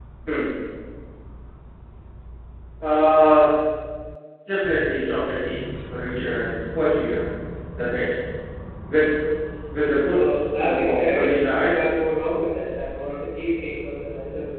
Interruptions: present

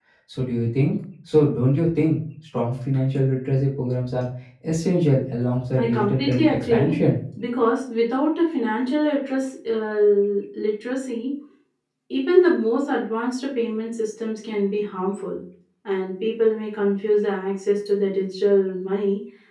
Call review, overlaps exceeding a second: present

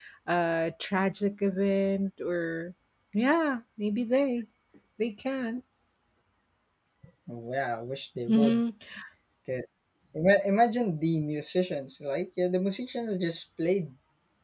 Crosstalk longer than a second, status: none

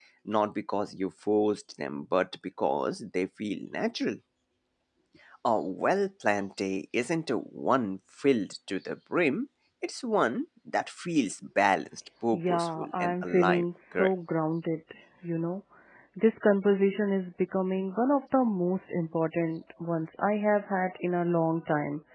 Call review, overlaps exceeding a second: present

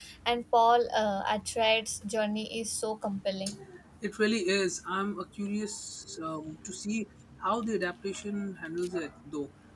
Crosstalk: none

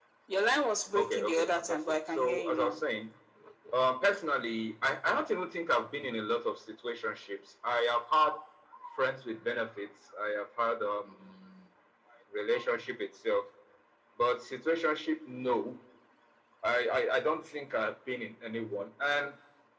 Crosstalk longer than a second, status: present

